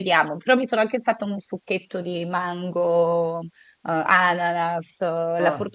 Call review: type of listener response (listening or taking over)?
listening